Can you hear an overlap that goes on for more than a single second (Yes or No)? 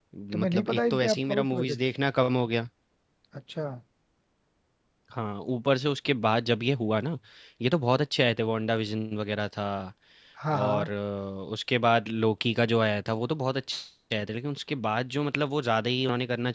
Yes